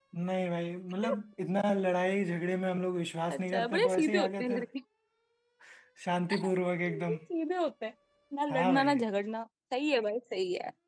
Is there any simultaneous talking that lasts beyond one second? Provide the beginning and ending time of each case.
3.3-4.6

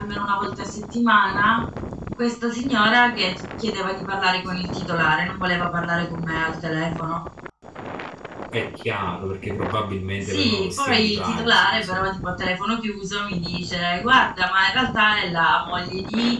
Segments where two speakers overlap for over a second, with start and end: 10.2-12.0

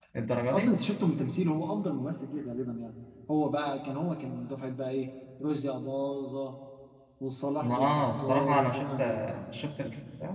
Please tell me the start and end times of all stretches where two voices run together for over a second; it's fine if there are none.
7.6-9.0

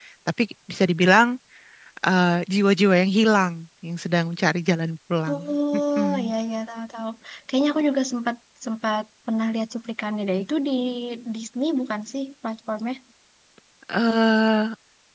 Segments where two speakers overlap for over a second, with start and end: none

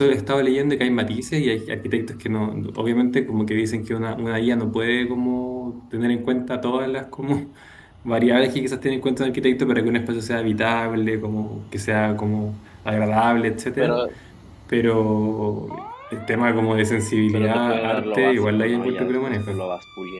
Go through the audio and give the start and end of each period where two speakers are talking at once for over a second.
17.3-19.6

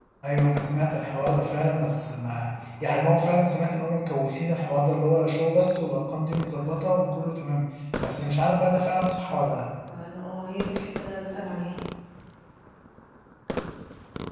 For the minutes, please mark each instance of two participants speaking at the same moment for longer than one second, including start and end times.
none

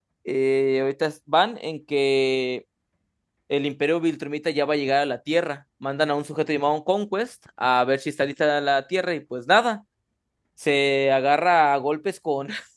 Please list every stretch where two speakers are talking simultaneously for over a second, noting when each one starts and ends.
none

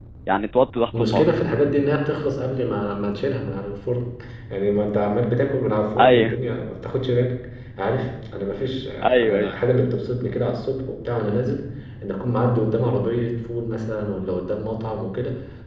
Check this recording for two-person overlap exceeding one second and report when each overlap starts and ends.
none

